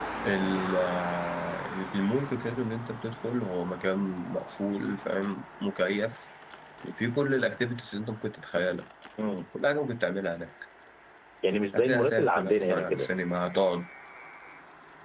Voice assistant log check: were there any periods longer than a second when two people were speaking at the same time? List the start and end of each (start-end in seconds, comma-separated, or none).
11.8-13.1